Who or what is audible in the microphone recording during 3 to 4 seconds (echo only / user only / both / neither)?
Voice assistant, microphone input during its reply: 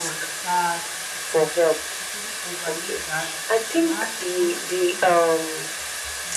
both